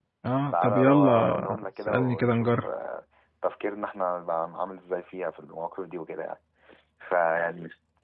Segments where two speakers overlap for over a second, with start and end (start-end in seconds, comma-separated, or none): 0.5-2.6